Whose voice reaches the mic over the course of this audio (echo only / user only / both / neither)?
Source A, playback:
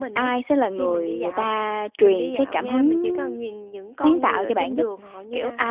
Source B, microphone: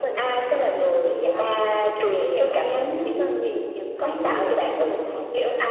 echo only